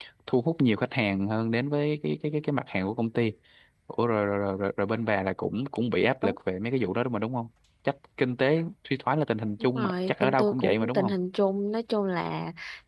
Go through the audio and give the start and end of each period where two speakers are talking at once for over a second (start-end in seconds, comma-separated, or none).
9.6-11.1